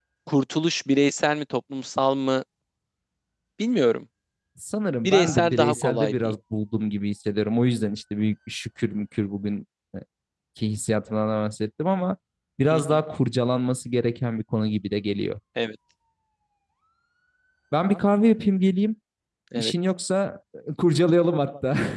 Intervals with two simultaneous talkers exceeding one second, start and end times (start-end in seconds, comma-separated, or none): 5.0-6.4